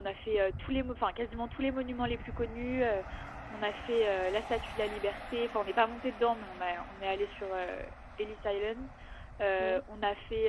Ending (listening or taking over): listening